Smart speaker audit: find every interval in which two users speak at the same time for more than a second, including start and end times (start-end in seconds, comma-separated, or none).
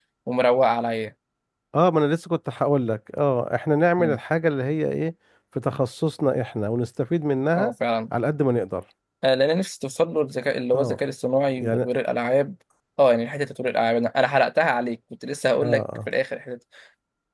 none